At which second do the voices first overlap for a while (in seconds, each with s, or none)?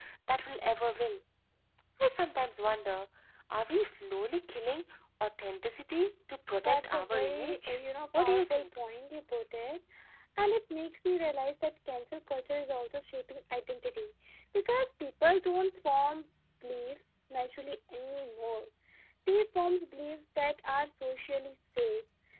6.6 s